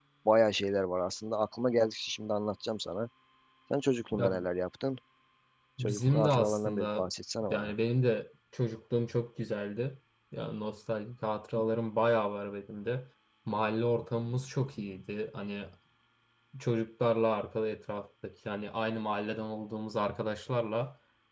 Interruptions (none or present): present